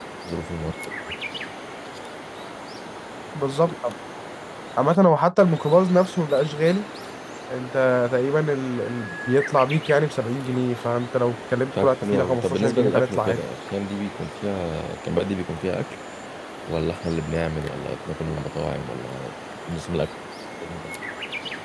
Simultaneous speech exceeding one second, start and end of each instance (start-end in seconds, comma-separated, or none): 11.8-13.4